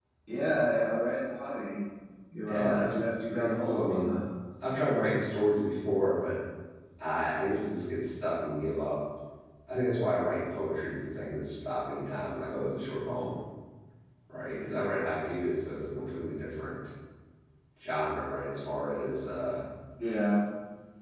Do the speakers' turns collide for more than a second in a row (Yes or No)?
Yes